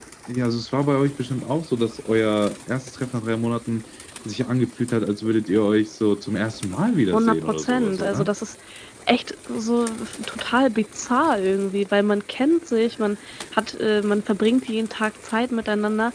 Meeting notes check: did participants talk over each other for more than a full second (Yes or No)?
Yes